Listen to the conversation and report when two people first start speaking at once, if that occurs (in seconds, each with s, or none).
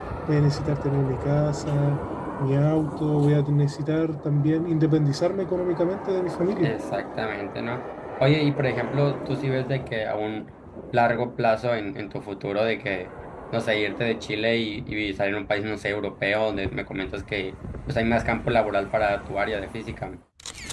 none